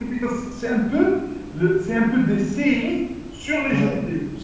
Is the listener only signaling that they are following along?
No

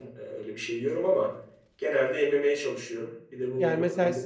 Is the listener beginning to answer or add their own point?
Yes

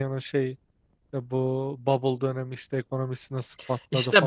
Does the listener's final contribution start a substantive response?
Yes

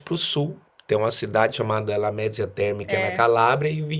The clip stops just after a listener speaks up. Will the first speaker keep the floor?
Yes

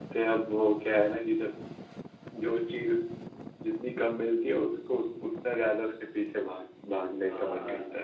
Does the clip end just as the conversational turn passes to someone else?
Yes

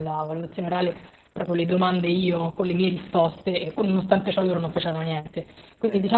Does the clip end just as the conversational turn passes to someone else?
No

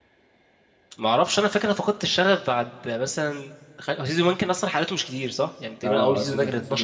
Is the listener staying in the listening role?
No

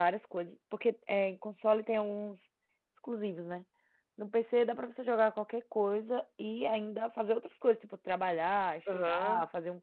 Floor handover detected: Yes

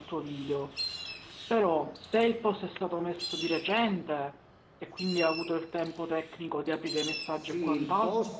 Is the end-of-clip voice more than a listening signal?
Yes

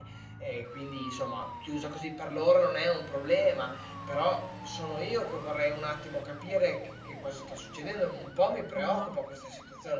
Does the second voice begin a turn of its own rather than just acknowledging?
No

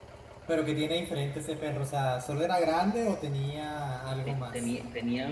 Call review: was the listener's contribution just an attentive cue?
No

